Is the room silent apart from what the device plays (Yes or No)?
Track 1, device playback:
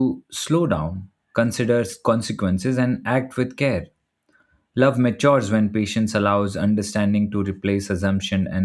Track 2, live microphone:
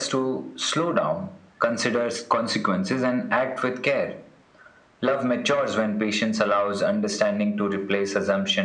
Yes